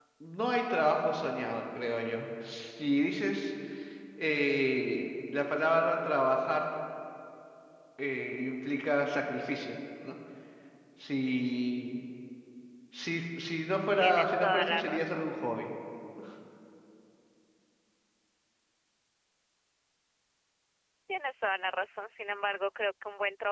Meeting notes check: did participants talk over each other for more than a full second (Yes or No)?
Yes